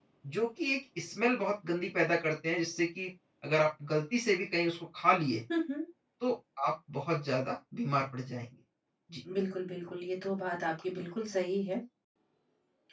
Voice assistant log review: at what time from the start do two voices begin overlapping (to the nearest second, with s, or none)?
none